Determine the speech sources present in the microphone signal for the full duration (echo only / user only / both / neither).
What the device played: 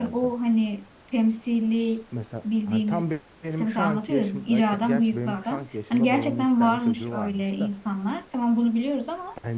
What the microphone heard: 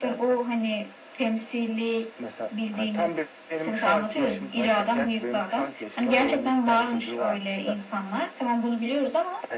echo only